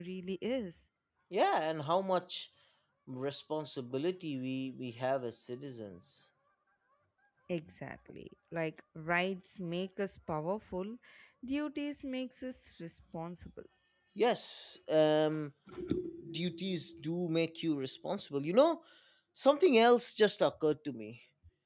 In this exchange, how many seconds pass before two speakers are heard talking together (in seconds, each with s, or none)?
none